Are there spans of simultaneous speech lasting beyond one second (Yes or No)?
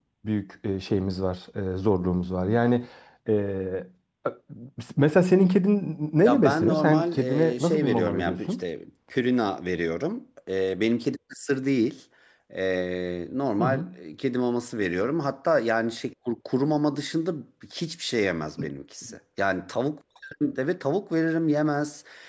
Yes